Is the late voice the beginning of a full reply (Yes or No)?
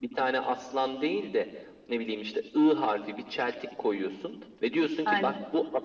No